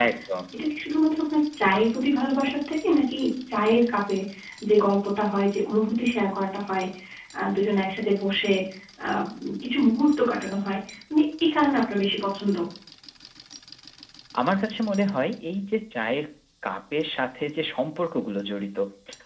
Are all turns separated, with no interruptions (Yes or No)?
Yes